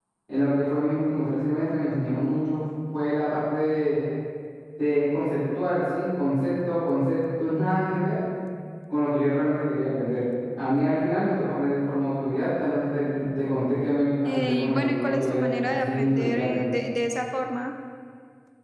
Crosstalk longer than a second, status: present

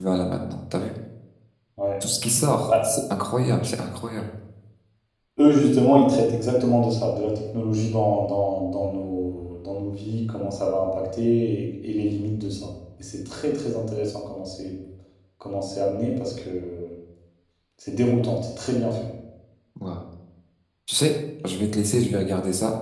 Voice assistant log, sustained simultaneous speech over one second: none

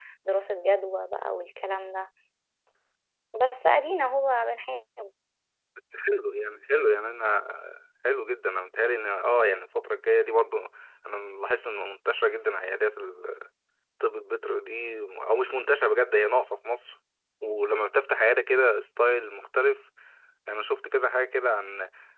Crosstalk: none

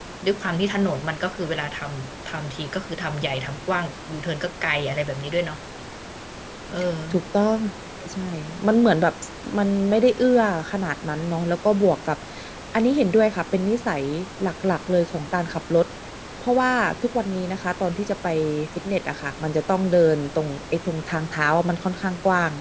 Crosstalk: none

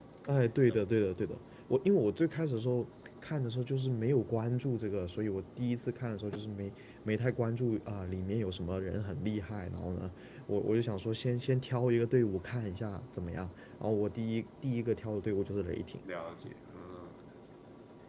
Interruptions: none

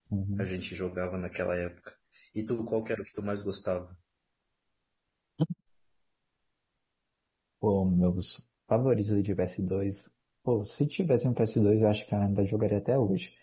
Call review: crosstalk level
none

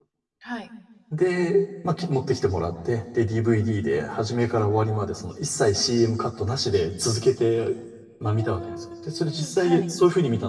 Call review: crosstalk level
present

